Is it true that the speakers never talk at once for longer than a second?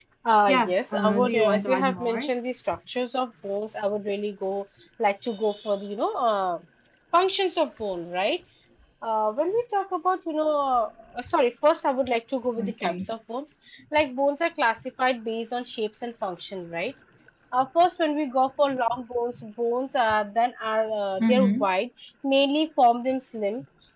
No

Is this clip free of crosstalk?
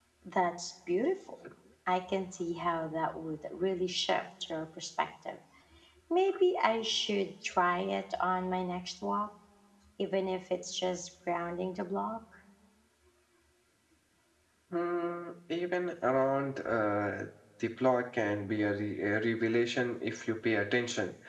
Yes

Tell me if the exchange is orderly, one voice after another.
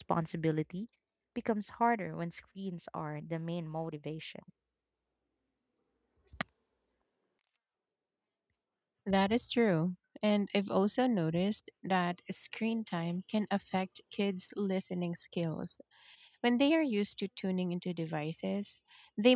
Yes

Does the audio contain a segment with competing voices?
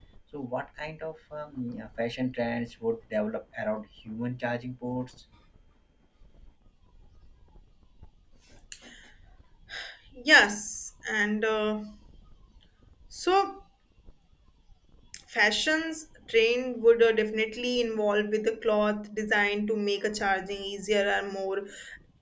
No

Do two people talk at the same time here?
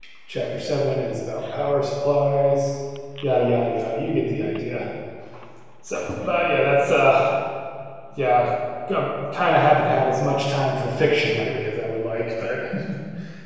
No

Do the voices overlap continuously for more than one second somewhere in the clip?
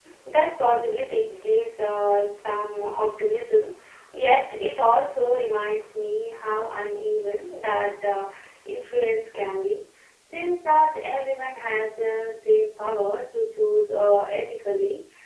No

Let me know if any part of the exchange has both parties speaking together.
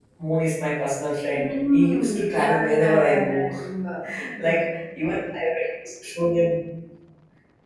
Yes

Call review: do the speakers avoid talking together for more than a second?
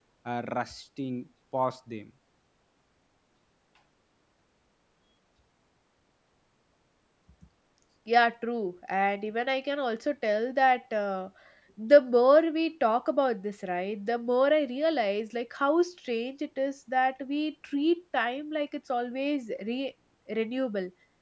Yes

